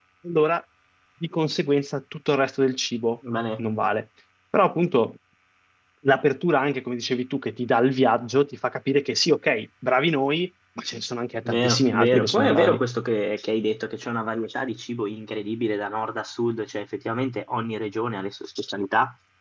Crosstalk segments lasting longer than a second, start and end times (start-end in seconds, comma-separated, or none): 11.4-12.8